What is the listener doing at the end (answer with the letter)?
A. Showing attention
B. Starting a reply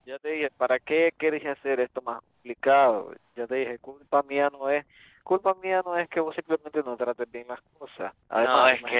B